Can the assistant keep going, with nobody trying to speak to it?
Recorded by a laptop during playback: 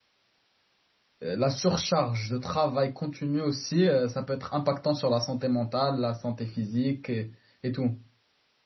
No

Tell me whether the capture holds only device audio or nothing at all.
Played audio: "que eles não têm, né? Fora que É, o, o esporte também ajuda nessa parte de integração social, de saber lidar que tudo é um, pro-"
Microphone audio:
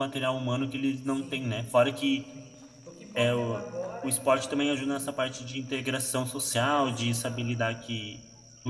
No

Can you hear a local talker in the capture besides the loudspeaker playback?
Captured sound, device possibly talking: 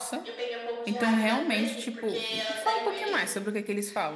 Yes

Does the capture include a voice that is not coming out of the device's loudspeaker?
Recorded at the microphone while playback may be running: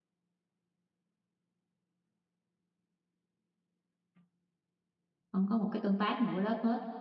Yes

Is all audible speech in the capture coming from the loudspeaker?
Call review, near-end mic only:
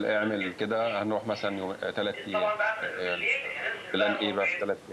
No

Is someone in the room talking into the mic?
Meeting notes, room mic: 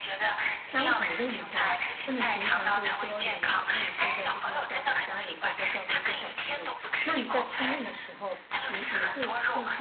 Yes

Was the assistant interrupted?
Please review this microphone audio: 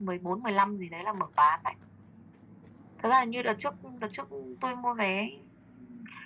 No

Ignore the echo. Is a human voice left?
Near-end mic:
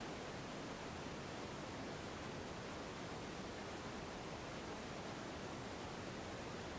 No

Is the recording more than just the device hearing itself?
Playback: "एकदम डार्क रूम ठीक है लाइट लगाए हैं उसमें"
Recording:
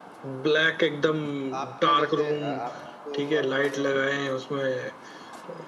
Yes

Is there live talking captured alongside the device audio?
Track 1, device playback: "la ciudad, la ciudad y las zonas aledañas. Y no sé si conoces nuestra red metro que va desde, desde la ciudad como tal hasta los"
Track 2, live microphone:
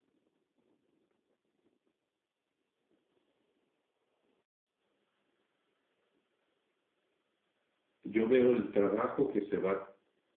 Yes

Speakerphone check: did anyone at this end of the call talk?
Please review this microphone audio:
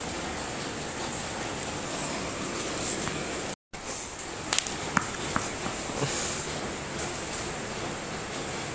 No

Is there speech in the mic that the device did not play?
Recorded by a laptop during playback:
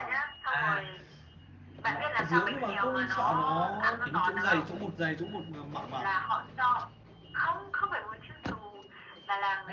Yes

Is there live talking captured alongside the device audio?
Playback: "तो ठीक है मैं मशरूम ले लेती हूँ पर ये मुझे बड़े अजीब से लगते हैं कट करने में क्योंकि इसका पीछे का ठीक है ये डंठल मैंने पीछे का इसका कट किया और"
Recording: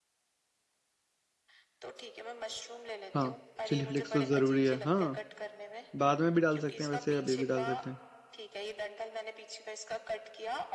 Yes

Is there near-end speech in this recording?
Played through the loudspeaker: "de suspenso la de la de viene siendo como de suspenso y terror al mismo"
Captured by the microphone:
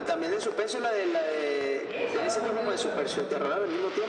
Yes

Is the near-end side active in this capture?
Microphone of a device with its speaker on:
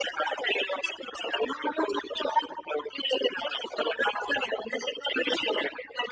No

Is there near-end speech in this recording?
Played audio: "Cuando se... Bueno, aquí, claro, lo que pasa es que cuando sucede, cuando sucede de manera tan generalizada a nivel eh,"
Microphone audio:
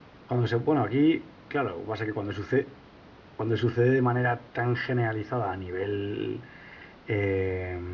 No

